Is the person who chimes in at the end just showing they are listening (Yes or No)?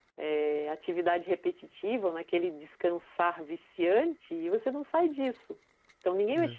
Yes